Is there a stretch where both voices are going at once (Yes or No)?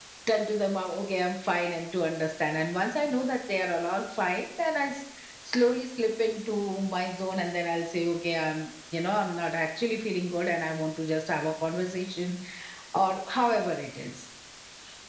No